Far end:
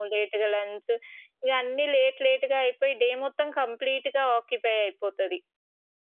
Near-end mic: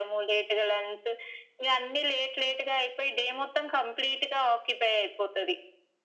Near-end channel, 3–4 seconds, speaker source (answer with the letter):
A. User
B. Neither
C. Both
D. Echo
D